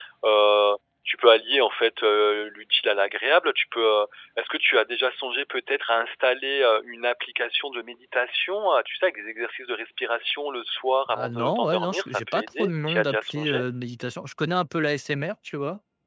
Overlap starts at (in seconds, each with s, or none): 11.1 s